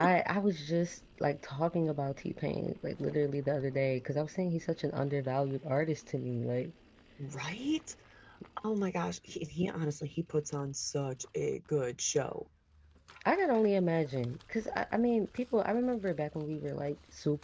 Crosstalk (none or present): none